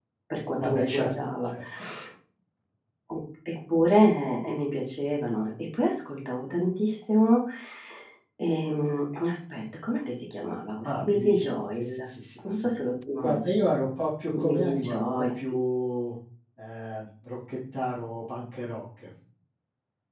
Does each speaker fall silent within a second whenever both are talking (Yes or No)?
No